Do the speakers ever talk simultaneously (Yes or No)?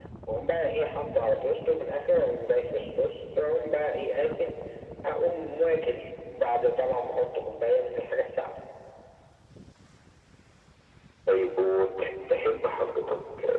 No